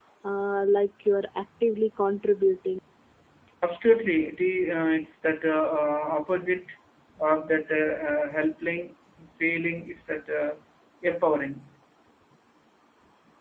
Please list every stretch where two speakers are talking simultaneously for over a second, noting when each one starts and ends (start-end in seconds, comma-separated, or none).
none